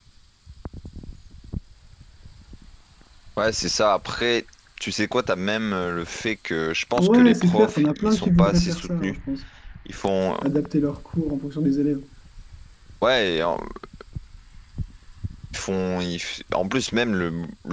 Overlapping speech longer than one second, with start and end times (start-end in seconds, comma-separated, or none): 7.0-9.2